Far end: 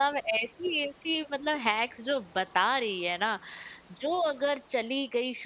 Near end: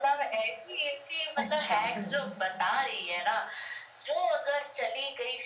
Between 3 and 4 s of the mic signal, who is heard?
echo only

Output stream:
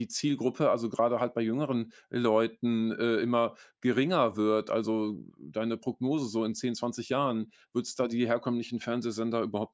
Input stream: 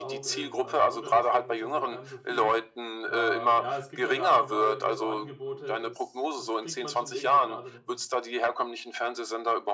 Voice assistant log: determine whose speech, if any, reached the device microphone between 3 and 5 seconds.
both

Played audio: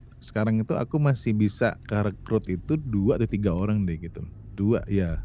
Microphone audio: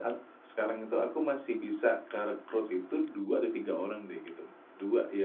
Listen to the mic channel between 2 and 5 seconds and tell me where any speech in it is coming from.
echo only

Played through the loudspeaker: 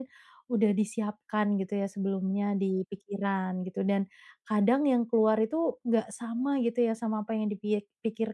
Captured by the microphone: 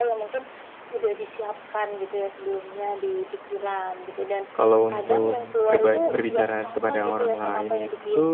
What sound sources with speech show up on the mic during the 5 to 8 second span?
both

